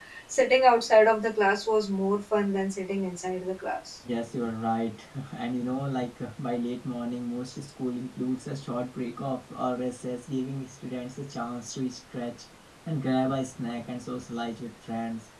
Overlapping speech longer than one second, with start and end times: none

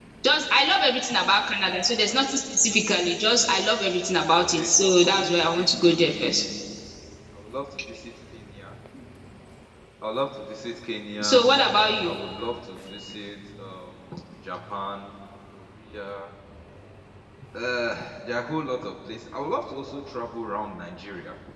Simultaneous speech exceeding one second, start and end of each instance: 4.5-6.4

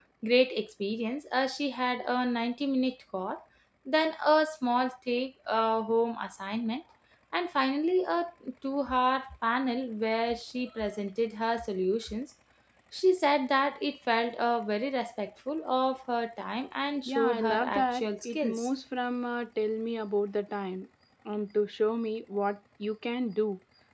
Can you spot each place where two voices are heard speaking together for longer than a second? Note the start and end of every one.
17.1-18.7

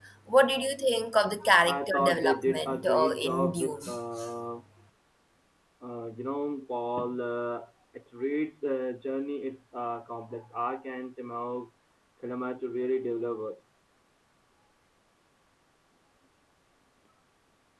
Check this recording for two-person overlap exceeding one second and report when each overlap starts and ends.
1.7-3.8

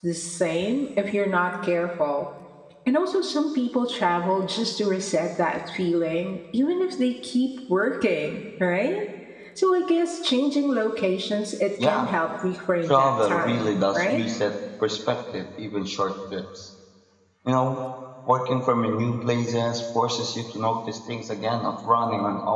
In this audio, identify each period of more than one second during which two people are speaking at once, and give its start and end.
12.9-14.2

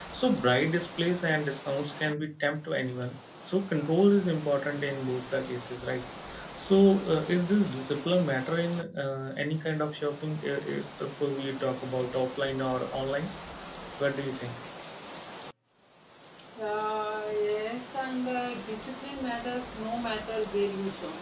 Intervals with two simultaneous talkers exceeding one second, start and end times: none

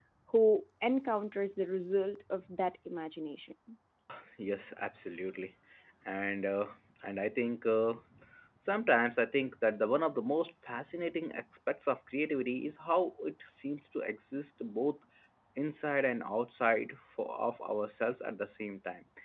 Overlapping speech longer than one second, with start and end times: none

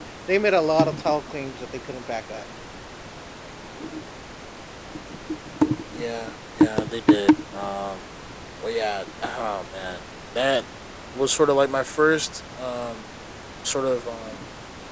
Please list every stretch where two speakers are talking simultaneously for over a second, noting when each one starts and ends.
none

